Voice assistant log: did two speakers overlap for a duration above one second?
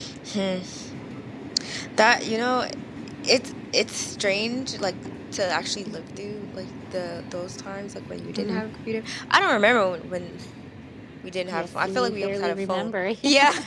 Yes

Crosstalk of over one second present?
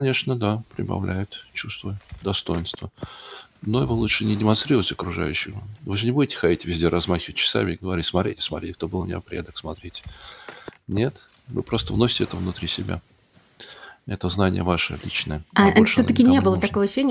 Yes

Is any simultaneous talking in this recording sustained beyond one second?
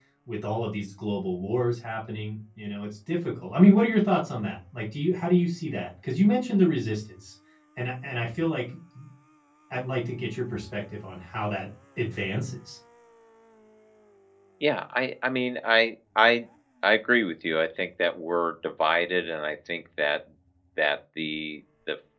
No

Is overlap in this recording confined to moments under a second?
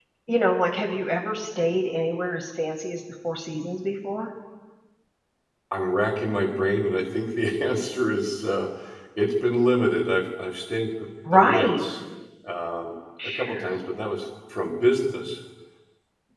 Yes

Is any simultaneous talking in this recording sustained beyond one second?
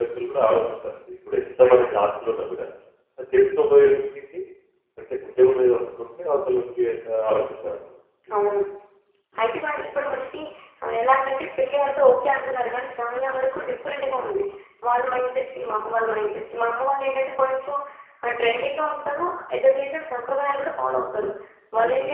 No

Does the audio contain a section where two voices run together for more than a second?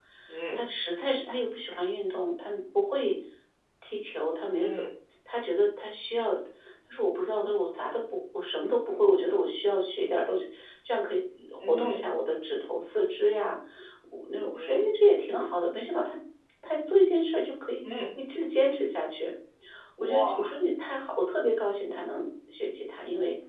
No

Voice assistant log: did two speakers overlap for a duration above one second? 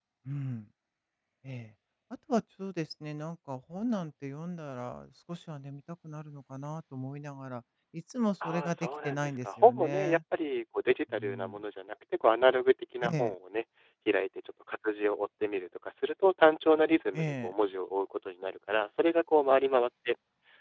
Yes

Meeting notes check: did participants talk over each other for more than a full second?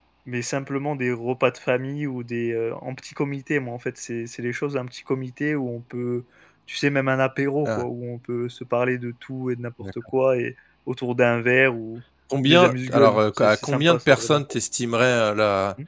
Yes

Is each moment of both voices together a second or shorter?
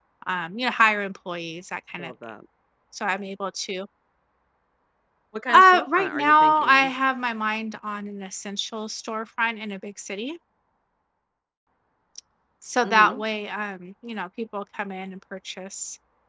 No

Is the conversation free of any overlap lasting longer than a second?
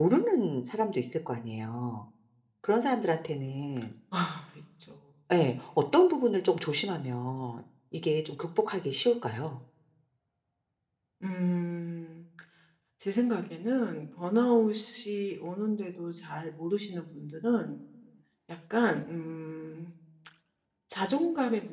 Yes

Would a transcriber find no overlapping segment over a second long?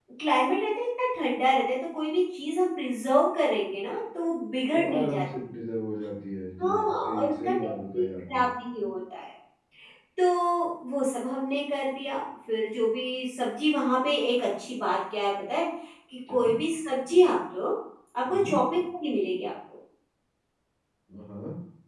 No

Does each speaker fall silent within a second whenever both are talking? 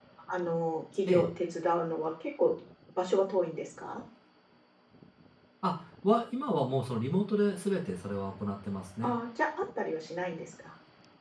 Yes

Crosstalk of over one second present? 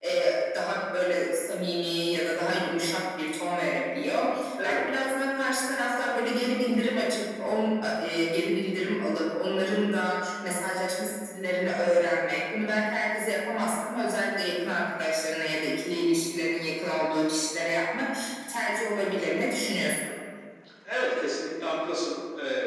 No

